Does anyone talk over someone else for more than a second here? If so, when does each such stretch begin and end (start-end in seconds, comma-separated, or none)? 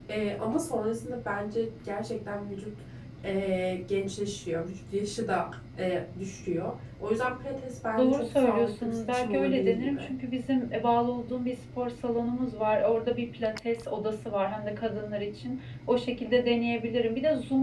8.0-10.1